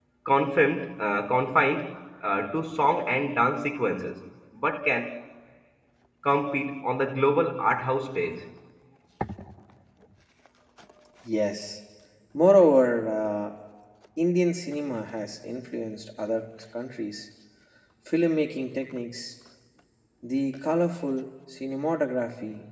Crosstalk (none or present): none